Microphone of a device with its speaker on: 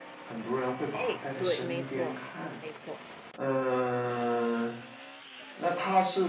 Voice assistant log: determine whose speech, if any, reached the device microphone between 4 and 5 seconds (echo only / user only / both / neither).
echo only